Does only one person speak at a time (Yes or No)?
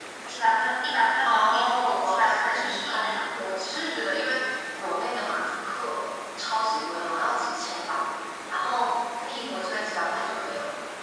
No